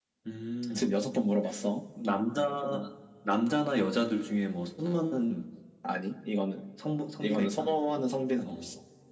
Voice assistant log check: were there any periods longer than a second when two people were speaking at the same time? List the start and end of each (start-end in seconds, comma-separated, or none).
none